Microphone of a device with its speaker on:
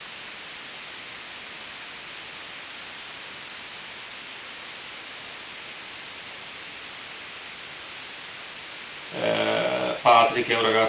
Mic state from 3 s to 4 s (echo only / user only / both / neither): neither